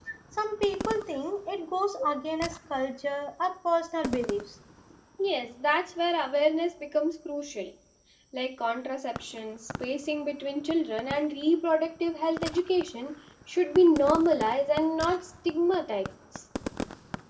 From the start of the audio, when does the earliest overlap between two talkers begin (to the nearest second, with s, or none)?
none